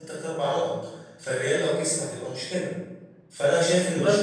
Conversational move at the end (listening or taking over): listening